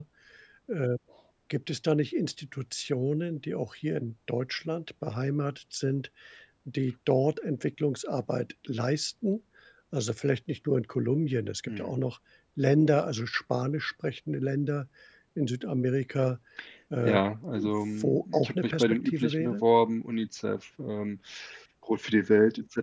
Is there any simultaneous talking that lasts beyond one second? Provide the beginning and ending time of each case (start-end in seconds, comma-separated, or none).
18.0-19.6